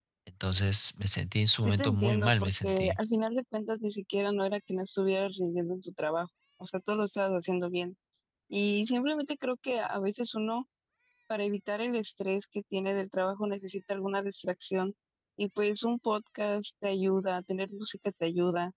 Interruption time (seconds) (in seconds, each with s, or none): 1.6 s